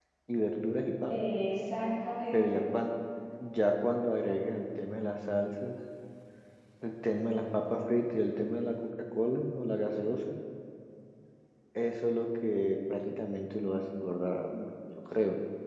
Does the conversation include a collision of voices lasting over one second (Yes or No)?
No